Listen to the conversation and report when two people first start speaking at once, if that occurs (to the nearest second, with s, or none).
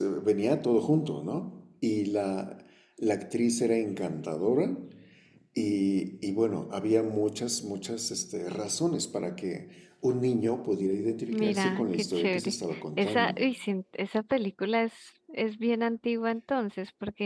11 s